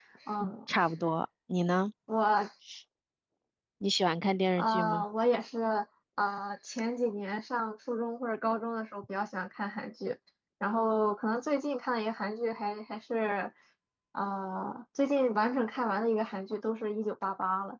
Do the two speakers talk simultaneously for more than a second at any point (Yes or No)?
No